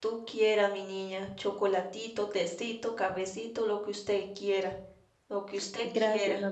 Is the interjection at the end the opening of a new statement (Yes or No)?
Yes